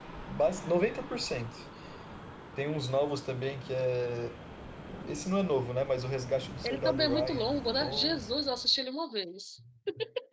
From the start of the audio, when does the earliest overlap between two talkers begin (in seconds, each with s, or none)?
6.6 s